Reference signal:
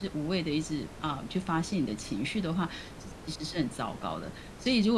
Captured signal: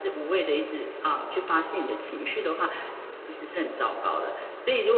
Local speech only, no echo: none

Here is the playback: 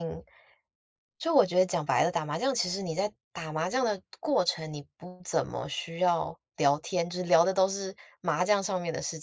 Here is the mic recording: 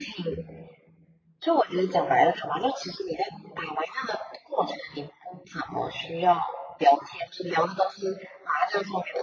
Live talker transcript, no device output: none

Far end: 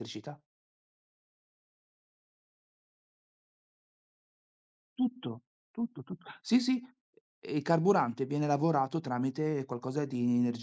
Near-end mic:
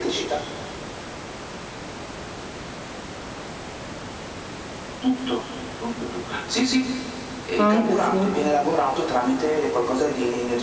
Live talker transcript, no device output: Anche sì.

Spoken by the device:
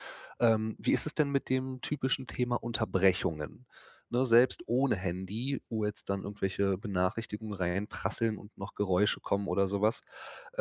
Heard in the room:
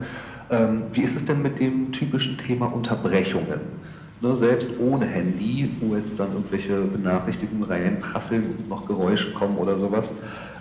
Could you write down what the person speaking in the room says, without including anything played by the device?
none

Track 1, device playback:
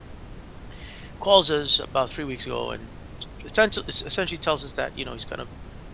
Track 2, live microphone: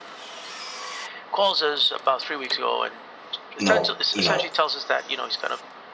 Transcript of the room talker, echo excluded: you know you know

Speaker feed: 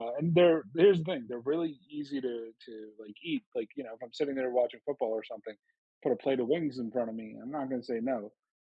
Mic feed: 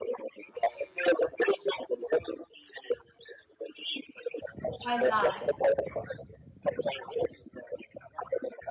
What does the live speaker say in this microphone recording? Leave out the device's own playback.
Why is that?

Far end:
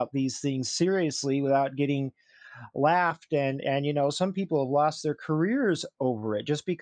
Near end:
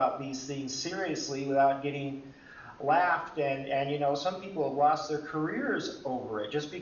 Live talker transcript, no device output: none

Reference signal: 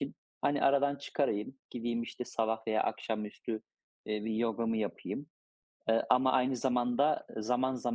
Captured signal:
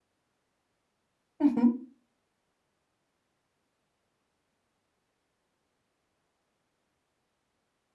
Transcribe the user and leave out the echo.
Hı hı.

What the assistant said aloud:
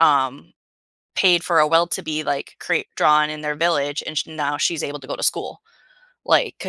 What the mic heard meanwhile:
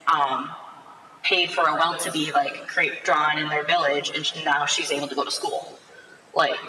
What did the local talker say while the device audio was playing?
none

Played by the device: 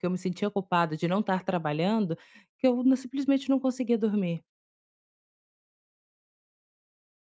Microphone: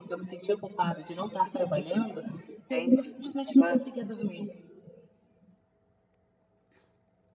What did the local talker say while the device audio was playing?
entendi. Estava

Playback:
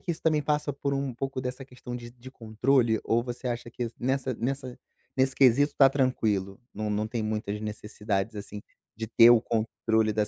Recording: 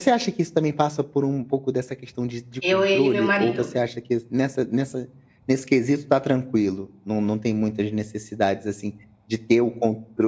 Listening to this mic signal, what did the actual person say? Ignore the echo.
eu, ele e meu marido.

